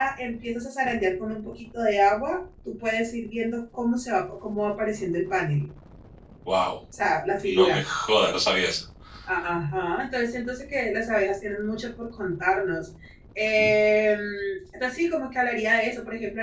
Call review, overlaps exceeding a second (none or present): none